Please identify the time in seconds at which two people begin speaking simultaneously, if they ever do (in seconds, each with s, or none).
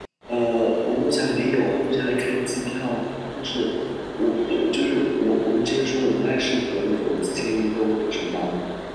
none